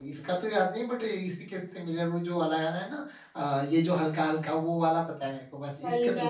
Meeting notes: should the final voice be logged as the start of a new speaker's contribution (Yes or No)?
Yes